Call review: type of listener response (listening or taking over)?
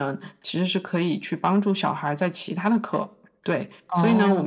listening